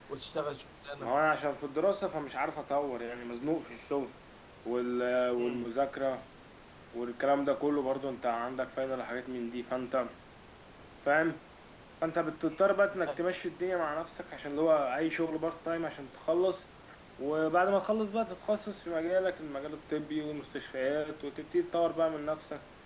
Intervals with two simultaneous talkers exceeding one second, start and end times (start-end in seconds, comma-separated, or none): none